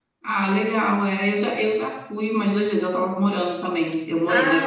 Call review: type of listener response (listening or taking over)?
listening